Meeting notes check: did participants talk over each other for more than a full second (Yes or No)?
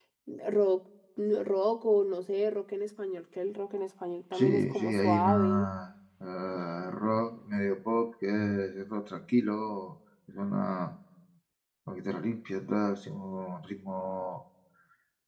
Yes